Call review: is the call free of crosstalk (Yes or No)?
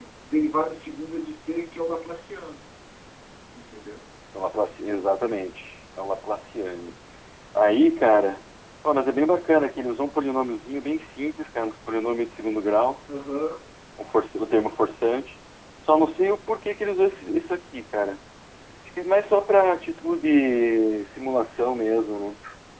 Yes